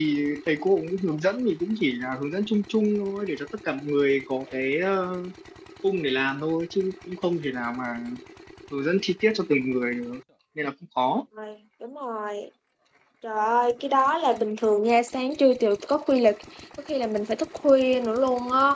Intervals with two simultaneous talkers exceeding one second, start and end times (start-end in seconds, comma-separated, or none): none